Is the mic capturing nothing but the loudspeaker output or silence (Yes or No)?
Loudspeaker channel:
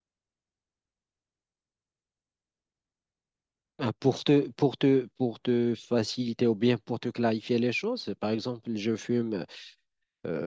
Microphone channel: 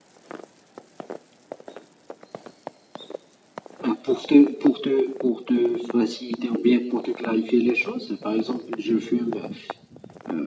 Yes